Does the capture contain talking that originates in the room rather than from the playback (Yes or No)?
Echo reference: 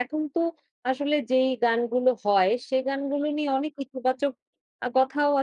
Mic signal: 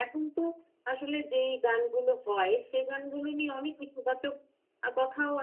No